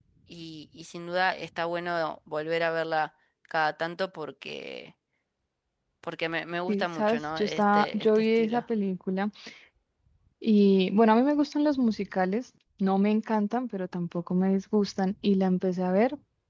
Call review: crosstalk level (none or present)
present